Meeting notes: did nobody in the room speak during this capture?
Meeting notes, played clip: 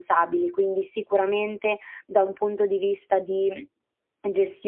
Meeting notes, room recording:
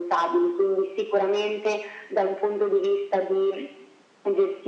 Yes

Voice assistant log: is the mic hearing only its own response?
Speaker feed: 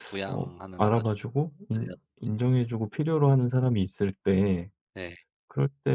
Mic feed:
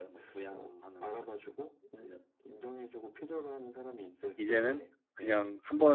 No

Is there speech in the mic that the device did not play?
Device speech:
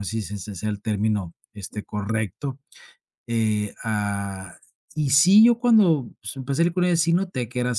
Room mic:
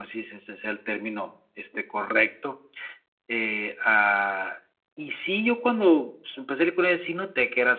No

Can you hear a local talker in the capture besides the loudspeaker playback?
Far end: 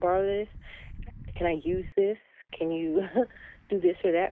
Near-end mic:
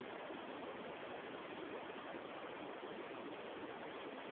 No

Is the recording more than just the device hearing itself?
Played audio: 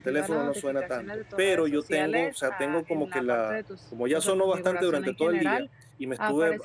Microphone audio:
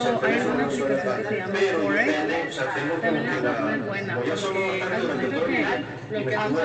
Yes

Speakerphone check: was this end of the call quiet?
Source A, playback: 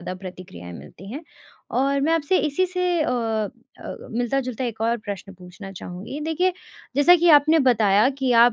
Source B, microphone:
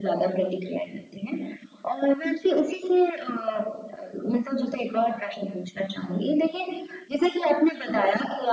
Yes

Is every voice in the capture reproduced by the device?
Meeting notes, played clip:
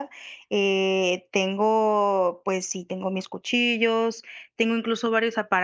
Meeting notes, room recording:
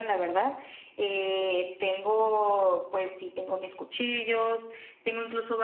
Yes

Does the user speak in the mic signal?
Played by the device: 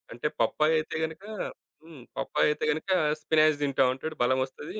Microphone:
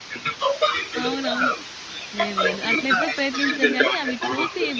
Yes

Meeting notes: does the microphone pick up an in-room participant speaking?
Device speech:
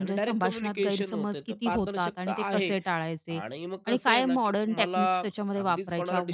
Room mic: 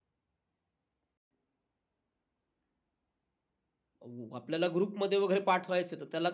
Yes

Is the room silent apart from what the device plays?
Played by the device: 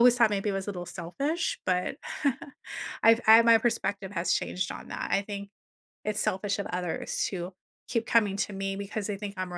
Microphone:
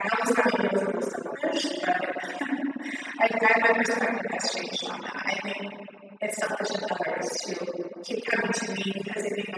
Yes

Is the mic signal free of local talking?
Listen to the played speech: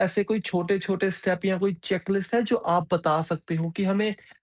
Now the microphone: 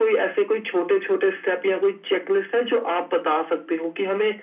Yes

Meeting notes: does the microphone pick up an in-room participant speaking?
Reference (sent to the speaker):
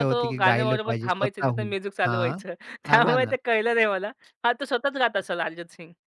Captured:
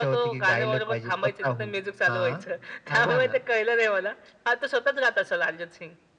No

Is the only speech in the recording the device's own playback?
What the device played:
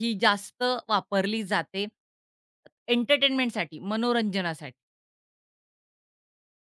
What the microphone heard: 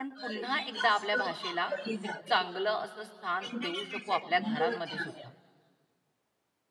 No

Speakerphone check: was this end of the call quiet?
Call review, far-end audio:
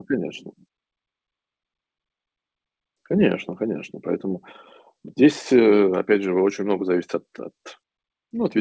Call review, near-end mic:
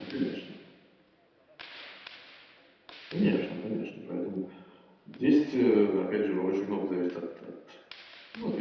Yes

